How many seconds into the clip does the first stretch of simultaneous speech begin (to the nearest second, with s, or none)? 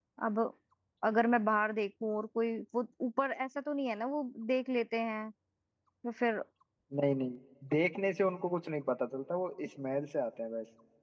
none